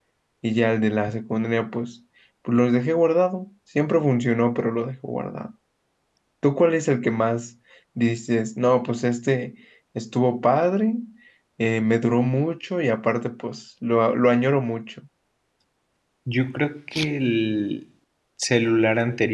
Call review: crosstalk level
none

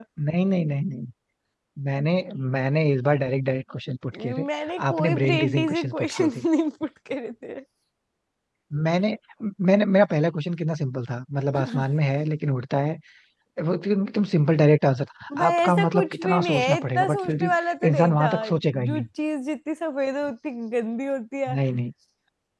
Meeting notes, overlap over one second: present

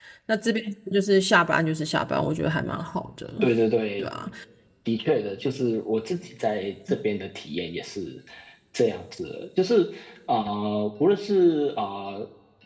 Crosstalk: none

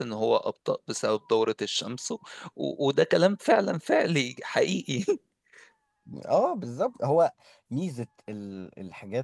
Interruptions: none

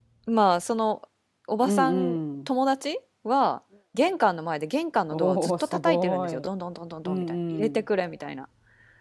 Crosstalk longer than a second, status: present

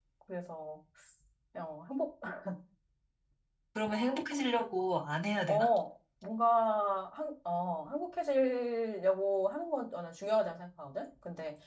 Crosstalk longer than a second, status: none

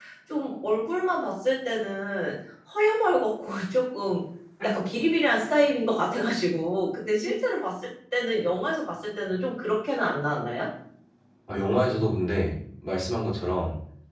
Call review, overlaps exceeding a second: none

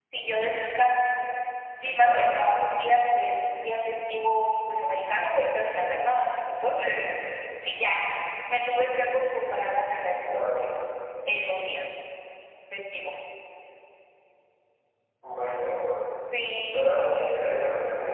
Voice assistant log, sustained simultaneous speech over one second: none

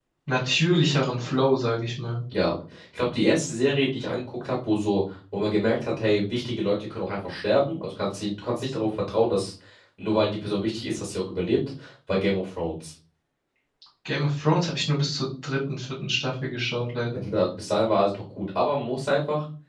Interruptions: none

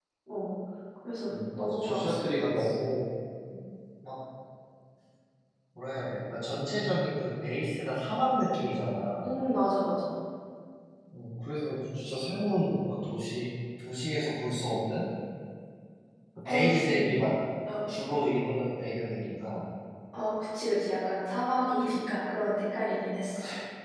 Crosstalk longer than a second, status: present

